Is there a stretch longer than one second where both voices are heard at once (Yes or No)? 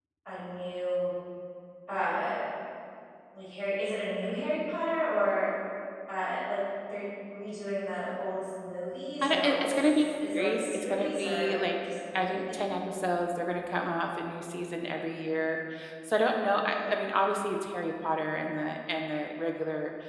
Yes